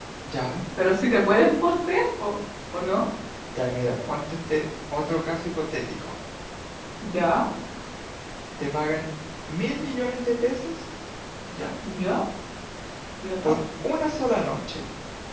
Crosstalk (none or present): none